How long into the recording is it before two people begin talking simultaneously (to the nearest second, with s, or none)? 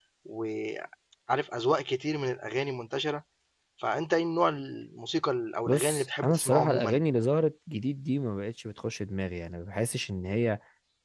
6 s